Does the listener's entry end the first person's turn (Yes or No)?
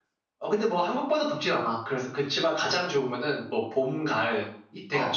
Yes